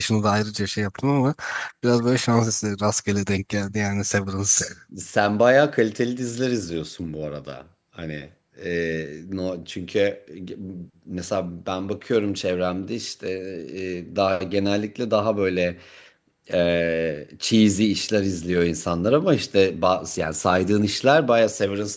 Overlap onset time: none

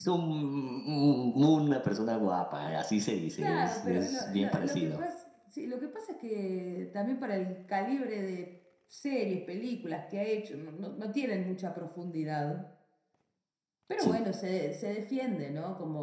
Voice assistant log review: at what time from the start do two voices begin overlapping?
3 s

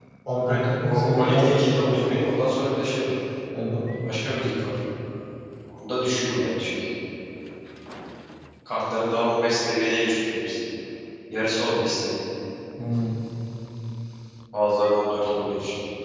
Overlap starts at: 1 s

